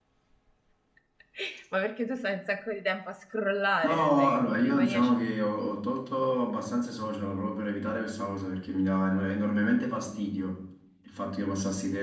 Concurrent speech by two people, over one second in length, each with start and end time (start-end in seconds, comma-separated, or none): 3.8-5.1